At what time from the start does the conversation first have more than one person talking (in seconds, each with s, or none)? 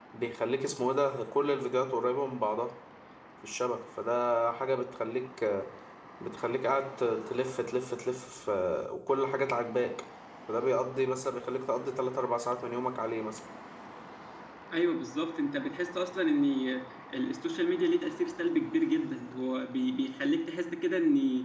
none